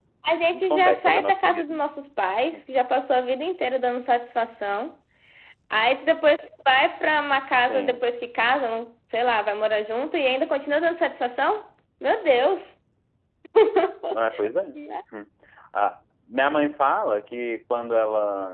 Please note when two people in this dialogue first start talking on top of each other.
1 s

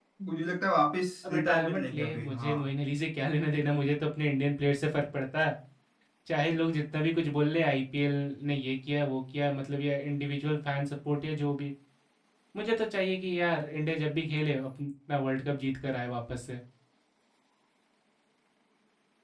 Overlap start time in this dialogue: 1 s

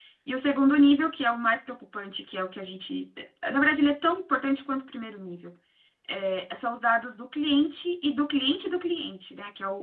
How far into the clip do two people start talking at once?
none

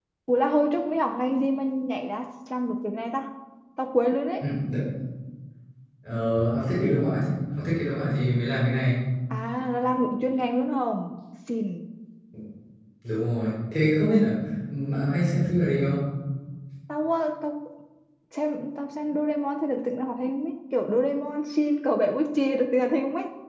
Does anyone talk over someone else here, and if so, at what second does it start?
none

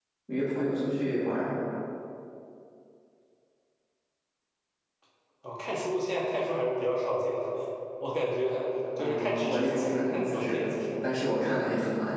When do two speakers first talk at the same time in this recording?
9 s

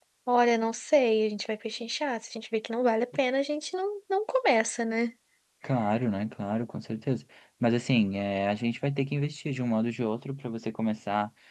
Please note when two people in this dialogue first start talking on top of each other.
none

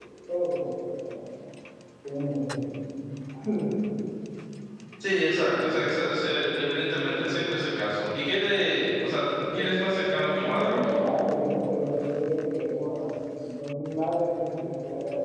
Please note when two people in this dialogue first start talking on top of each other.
10 s

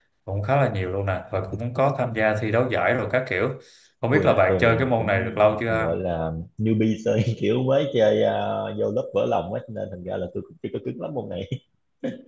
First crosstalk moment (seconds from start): 4 s

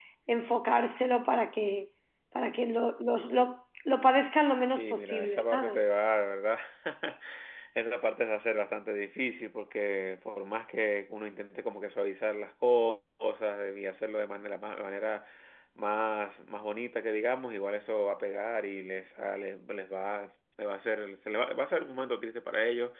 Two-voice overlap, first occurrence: 5 s

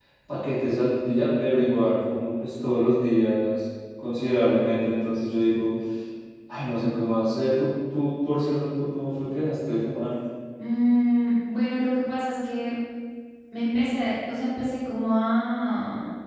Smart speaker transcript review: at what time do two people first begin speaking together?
none

